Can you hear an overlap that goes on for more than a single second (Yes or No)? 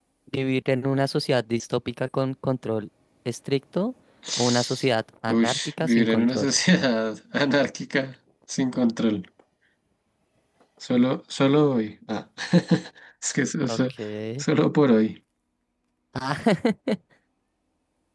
Yes